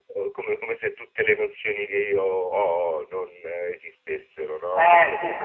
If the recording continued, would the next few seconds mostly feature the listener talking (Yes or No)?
Yes